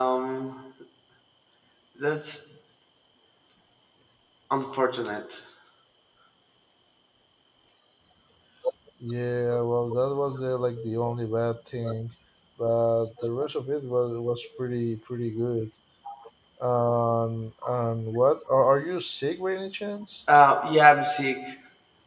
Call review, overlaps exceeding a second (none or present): none